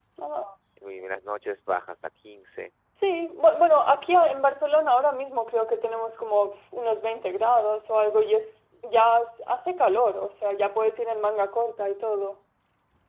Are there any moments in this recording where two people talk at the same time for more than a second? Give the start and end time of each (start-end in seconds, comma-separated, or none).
none